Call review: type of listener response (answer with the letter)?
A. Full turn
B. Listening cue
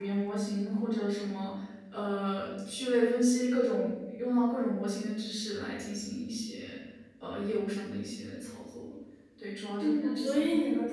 A